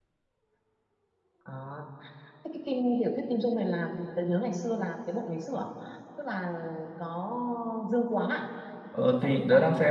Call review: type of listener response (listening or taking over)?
taking over